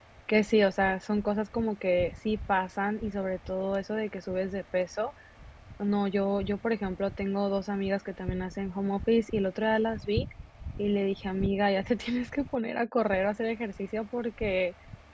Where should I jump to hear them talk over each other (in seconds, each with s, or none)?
none